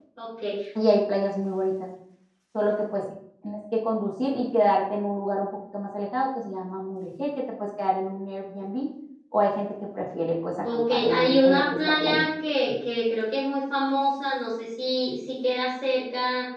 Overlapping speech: Yes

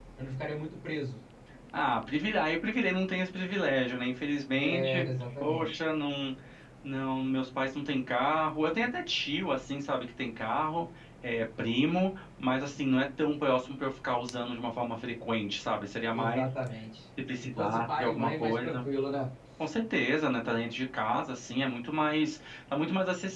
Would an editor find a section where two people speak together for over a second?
Yes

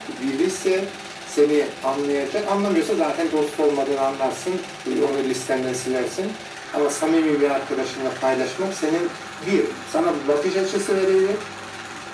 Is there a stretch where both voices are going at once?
No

